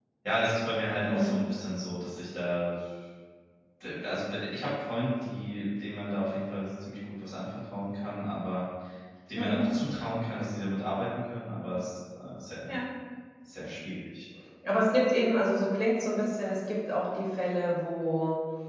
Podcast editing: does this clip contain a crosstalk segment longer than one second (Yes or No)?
No